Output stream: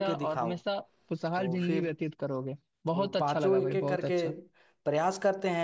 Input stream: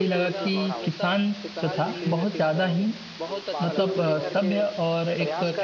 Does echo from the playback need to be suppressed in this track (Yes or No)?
Yes